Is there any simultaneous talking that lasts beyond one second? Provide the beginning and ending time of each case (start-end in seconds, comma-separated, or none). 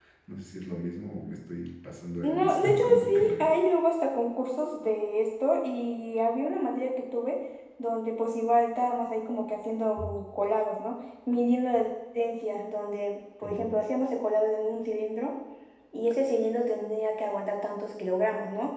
2.2-3.5